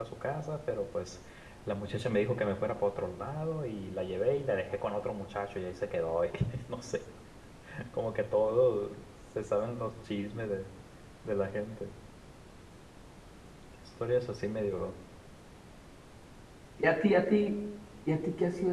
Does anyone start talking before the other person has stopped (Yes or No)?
No